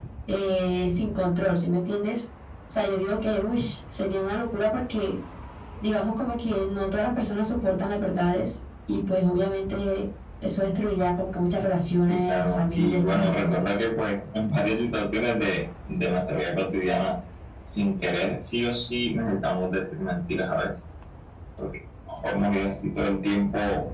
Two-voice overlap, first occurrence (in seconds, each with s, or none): 12.1 s